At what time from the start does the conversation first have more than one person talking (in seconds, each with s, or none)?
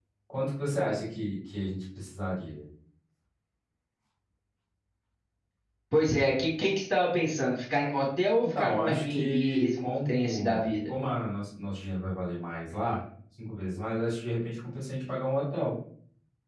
8.4 s